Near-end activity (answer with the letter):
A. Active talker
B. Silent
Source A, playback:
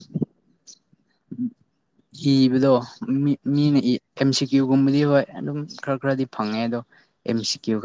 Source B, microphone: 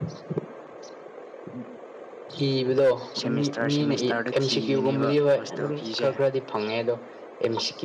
A